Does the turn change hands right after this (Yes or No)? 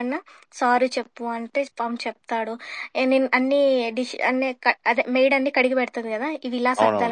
Yes